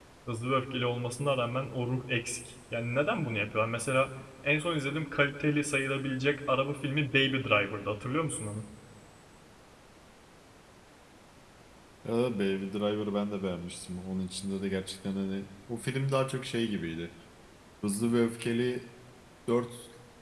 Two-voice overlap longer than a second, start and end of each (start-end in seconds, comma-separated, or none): none